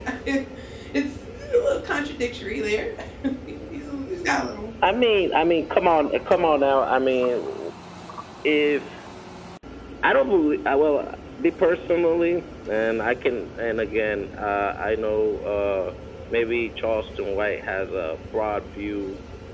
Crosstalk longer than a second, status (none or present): none